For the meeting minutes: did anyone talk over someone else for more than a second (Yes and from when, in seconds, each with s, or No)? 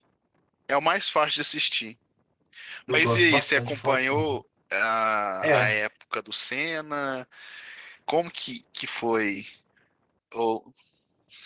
Yes, from 2.9 s